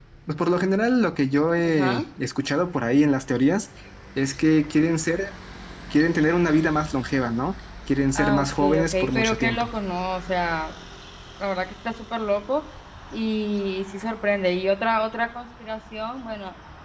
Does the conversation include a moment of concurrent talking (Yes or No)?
Yes